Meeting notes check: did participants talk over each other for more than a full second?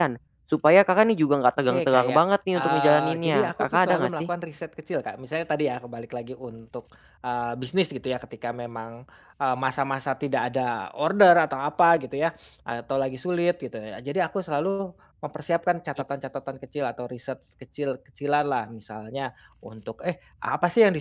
Yes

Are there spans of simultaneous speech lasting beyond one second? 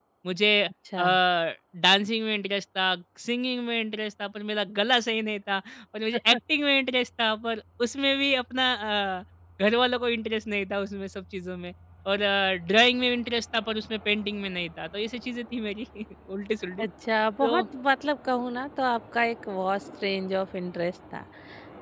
No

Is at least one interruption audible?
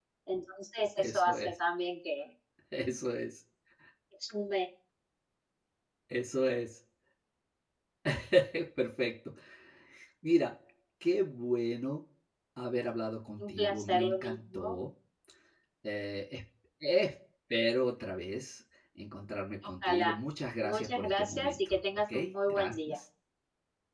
Yes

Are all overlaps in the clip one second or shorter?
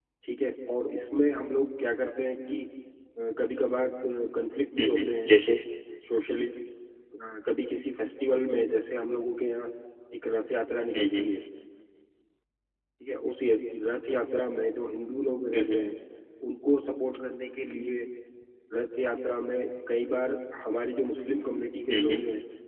Yes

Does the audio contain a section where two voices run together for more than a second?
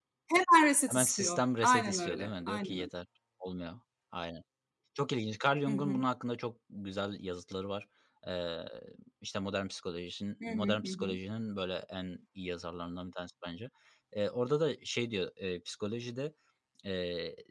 Yes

